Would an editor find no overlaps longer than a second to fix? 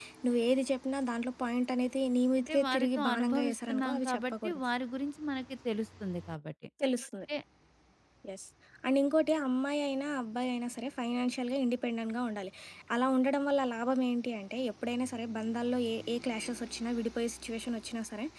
No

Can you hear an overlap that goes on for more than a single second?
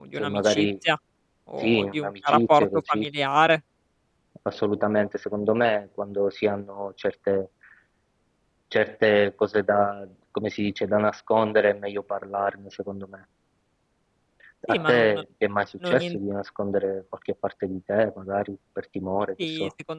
Yes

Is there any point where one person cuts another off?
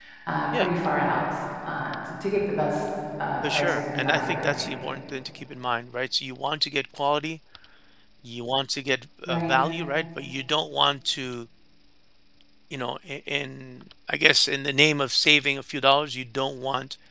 Yes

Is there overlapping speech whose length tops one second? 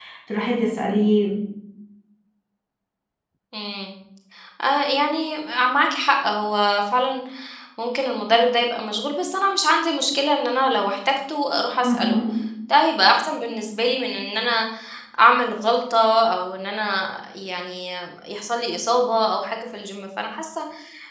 No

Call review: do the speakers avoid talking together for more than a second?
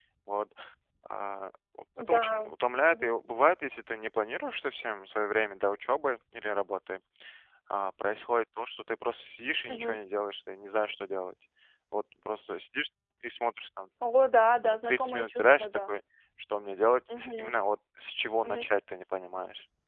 No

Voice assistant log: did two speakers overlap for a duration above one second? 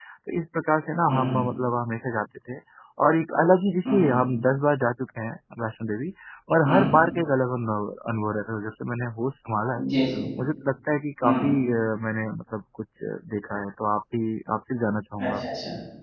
No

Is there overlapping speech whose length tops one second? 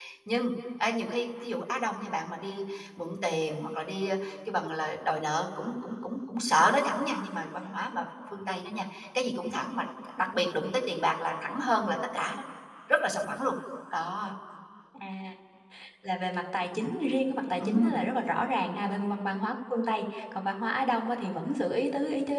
No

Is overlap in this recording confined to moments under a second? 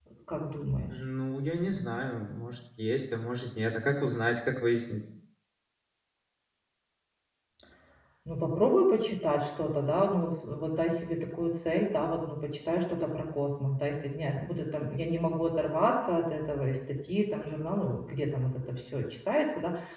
Yes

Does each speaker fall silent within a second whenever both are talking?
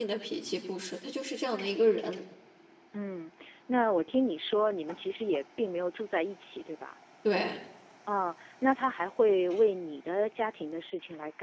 Yes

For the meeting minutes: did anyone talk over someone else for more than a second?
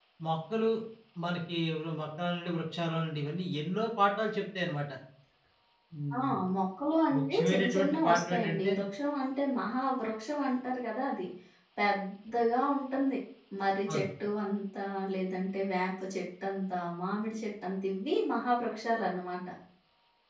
Yes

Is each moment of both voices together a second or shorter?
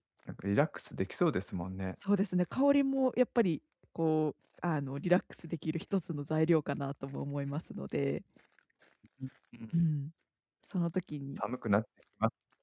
Yes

